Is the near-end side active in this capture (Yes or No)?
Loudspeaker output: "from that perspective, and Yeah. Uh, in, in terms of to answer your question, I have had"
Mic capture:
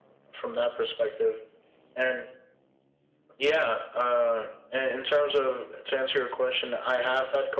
No